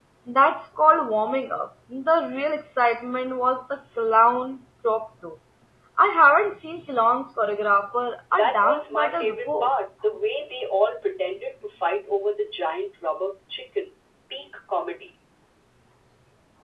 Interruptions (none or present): present